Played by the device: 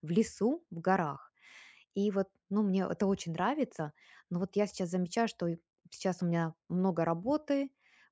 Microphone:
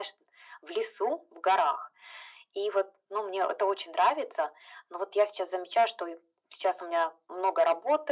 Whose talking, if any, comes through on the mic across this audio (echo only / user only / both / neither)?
echo only